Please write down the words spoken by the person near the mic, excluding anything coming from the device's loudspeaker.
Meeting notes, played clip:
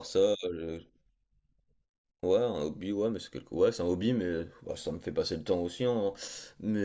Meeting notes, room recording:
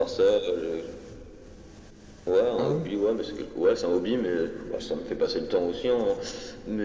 Ah ouais?

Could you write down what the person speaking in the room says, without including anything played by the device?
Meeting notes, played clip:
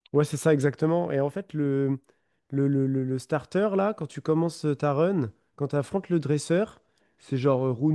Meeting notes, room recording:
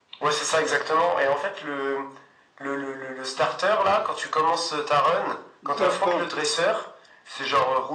Bah, Enfin,

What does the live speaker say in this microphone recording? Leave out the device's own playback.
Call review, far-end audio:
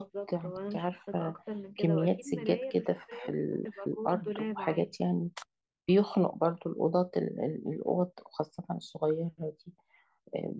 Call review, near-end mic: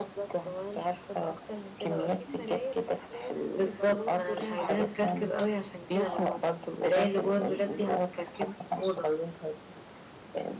بالظبط ما انا مش عايزاها تكركب قوي عشان كده ما هو المراية اللي جوه الدولاب دي هتكركب الأوضة

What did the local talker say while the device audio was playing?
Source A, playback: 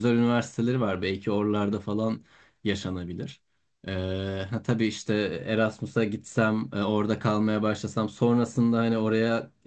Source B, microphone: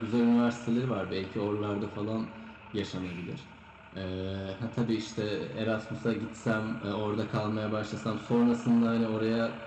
none

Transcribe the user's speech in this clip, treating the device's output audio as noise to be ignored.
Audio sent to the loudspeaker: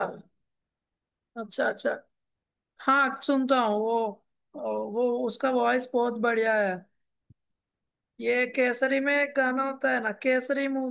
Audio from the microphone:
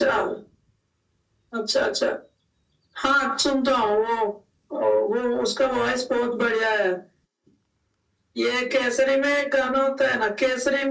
none

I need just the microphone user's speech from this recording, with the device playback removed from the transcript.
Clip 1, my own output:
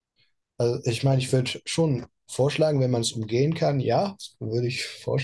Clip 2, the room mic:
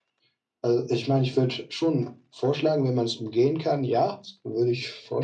none

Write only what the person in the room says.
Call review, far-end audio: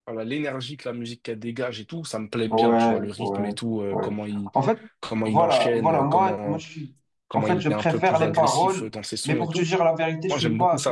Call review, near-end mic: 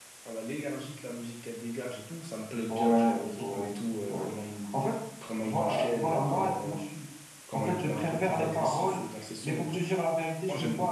none

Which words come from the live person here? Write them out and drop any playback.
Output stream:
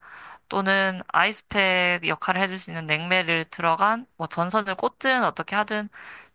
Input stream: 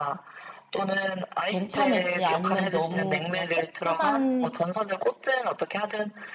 괜찮을지 아니면 너무 그냥 조그만

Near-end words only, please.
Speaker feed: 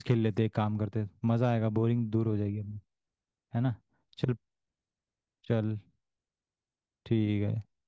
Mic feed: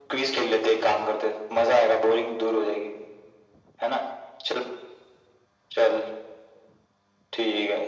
none

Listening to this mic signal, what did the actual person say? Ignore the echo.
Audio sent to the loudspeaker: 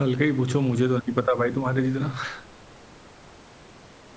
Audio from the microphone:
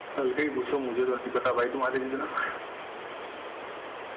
none

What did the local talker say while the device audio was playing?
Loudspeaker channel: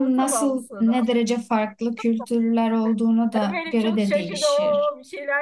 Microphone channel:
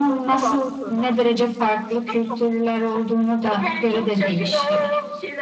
none

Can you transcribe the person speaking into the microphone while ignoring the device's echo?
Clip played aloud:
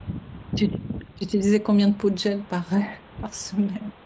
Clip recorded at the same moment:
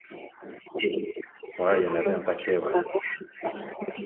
Ouais, il y en avait un paquet, ouais.

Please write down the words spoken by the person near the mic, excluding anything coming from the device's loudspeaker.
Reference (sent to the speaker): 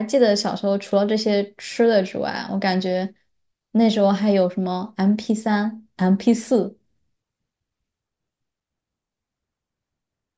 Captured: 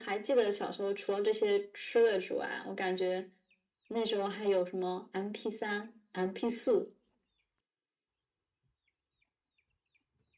none

